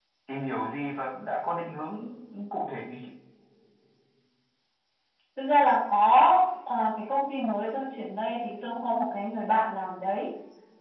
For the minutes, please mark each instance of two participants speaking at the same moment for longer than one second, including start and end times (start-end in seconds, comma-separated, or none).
none